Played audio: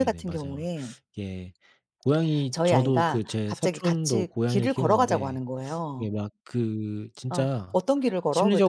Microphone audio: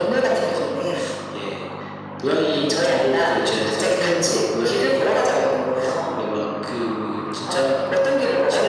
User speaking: No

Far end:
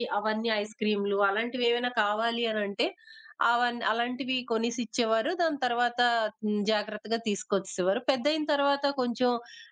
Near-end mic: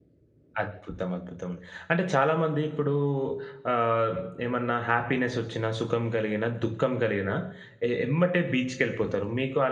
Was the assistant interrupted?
Yes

